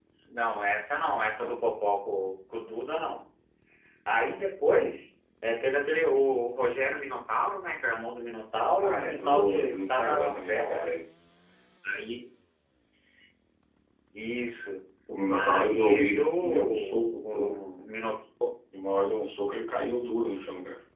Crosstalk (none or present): present